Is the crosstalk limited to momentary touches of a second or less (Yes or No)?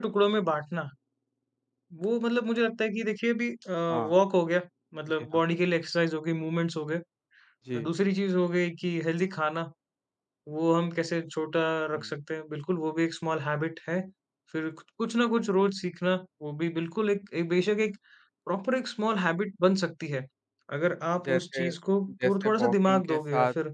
No